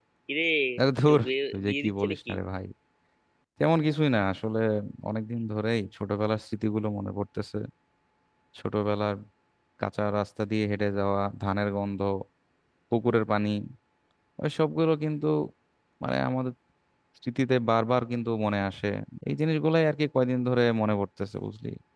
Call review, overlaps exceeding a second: present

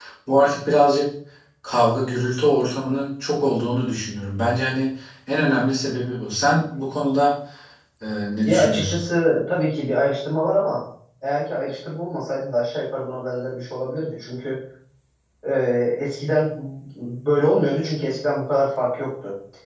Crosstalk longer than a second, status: none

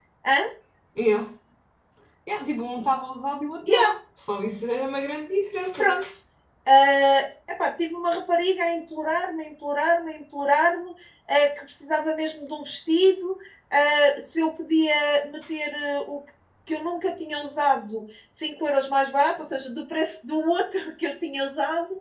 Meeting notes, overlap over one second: none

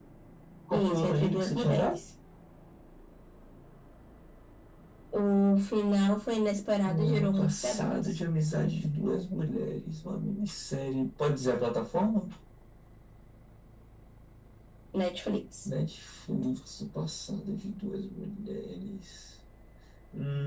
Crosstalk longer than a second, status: present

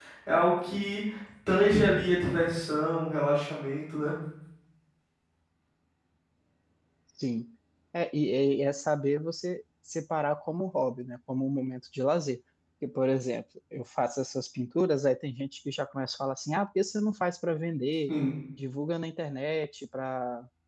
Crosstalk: none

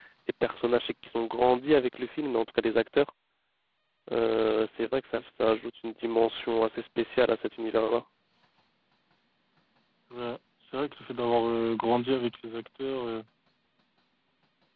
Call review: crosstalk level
none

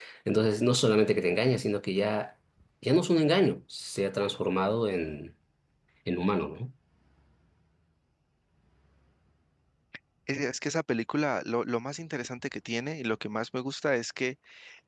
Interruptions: none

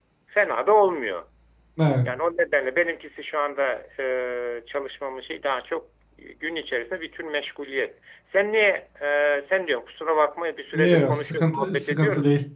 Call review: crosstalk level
present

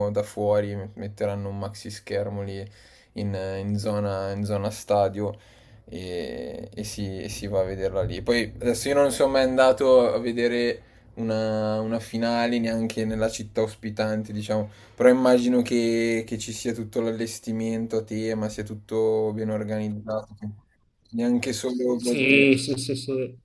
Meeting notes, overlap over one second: none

